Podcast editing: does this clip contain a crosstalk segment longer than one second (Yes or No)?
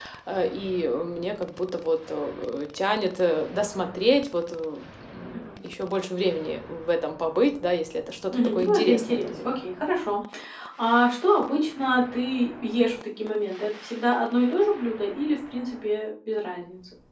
Yes